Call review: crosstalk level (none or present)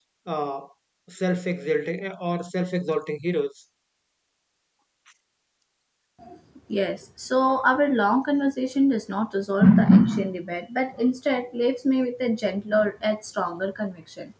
none